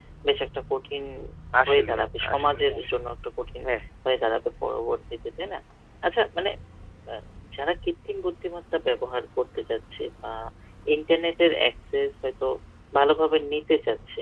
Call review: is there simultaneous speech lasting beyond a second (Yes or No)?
Yes